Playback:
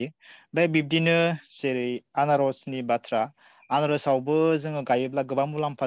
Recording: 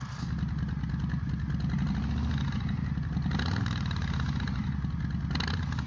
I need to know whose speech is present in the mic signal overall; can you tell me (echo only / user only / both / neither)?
neither